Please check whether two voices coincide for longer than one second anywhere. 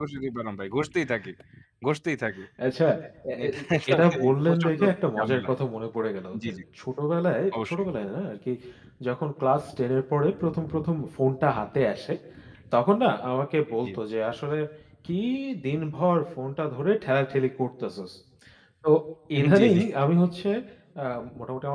Yes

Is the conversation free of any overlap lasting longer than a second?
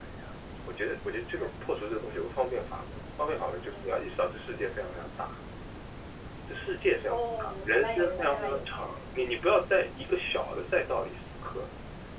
No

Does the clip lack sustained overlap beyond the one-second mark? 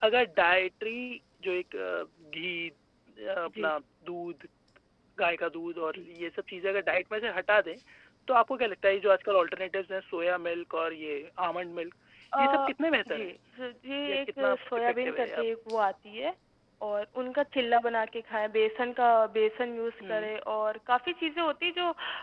No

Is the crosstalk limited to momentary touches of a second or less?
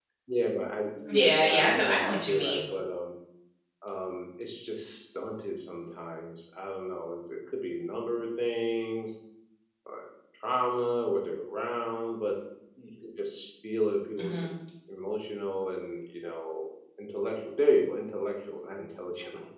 No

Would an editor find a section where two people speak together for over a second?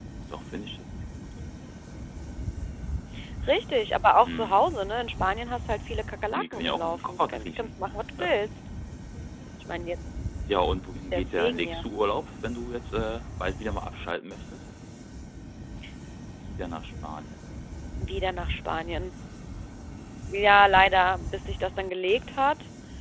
Yes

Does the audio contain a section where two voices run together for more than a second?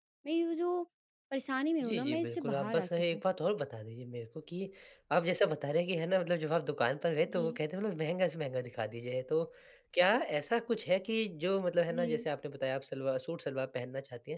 Yes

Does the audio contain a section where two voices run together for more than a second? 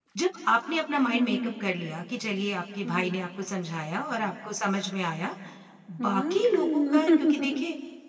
Yes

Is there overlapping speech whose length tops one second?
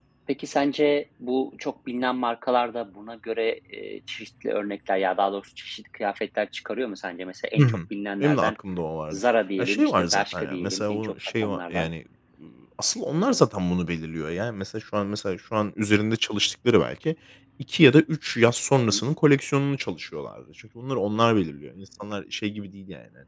Yes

